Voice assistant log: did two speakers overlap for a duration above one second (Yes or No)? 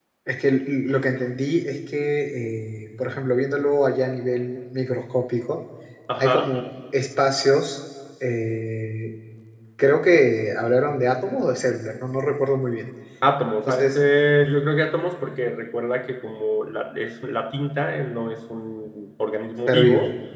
No